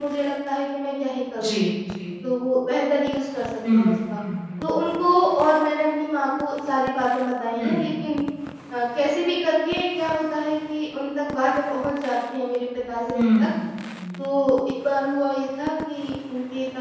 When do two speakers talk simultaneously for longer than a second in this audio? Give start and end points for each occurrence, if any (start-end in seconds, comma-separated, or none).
none